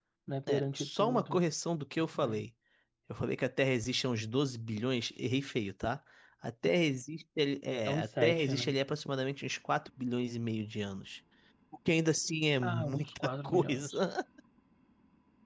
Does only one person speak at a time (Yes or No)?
No